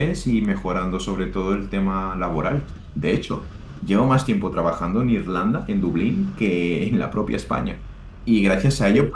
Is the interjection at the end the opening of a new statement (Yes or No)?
No